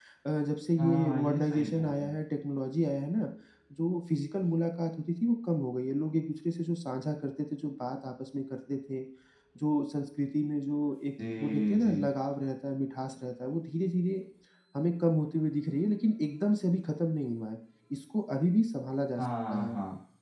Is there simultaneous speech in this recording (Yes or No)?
Yes